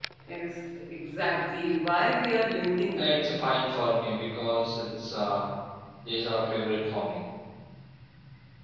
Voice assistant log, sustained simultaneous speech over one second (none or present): none